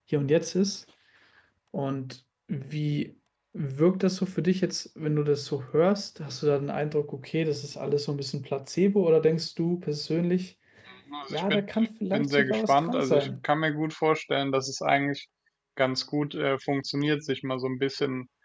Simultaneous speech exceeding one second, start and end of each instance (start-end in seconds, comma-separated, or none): 12.1-13.4